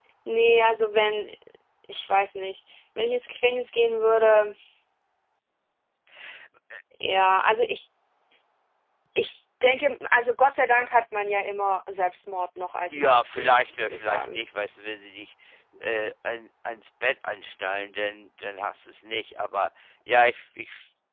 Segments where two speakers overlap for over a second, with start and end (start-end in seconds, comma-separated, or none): 12.9-14.4